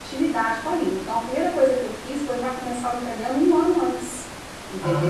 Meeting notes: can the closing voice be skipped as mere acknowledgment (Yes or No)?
No